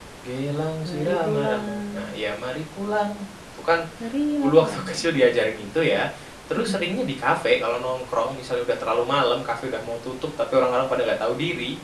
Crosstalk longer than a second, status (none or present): present